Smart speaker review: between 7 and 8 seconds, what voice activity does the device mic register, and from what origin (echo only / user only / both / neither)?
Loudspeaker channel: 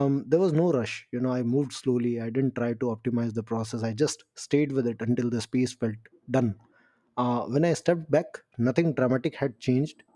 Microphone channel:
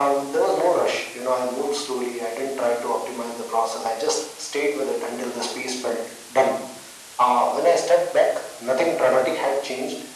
echo only